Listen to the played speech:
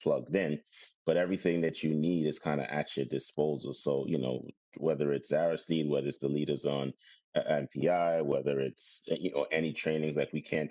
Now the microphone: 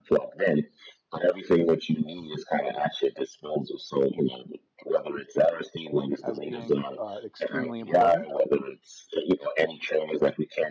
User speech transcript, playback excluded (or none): as being uh, extremely important,